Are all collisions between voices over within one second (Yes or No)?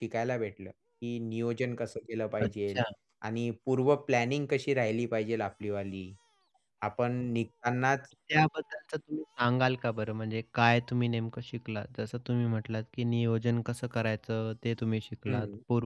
Yes